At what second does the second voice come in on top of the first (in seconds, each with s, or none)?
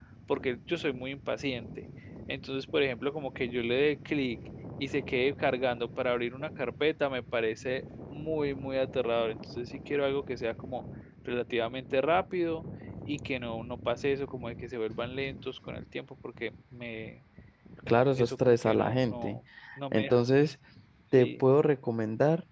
18.1 s